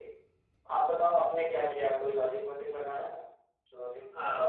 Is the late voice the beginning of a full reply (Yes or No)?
Yes